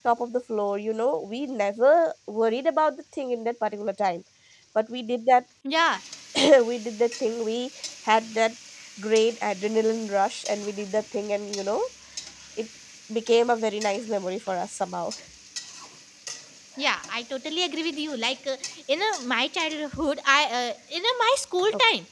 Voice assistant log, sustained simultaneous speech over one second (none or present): none